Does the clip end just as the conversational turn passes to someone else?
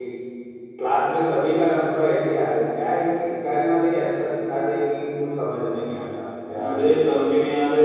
Yes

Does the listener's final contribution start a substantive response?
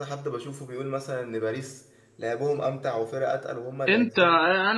Yes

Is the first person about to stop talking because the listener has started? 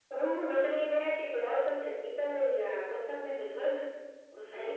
Yes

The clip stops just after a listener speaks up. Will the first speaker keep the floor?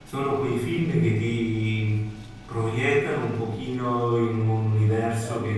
Yes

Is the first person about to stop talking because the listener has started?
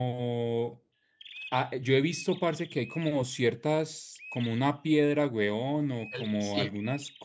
No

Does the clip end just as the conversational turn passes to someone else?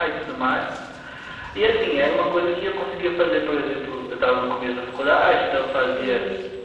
No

